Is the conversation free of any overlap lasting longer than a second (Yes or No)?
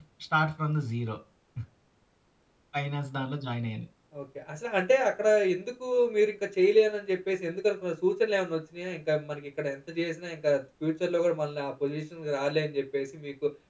Yes